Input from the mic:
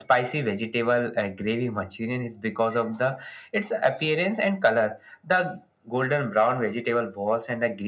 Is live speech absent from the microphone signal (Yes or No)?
Yes